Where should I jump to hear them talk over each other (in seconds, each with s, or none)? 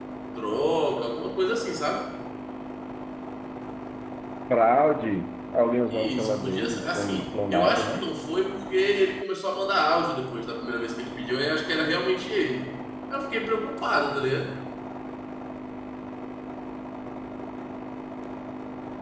5.9 s